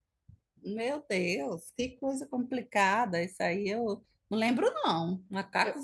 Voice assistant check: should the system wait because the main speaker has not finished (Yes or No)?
Yes